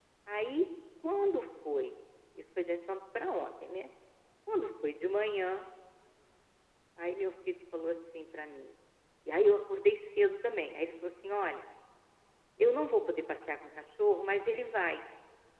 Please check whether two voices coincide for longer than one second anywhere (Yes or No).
No